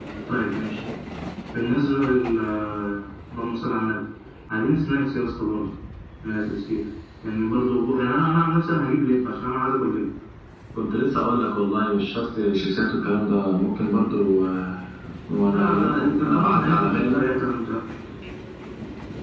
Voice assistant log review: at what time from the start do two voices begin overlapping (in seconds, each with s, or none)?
15.4 s